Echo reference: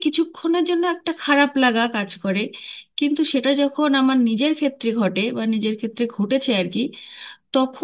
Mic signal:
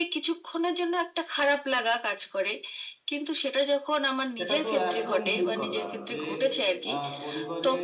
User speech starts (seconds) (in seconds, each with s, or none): 4.4 s